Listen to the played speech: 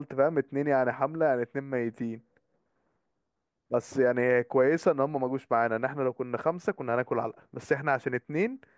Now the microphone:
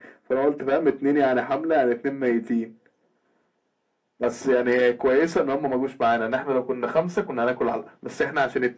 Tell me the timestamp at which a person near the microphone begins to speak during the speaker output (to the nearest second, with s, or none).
none